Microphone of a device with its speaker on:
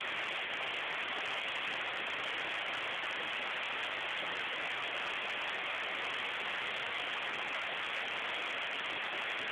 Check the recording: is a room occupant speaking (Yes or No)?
No